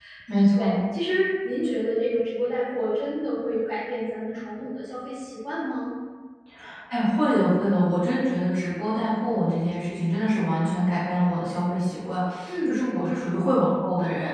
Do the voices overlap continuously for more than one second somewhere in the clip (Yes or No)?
No